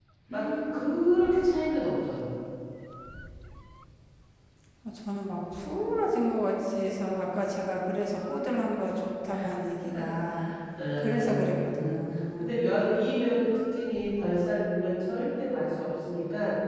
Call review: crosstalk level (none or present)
present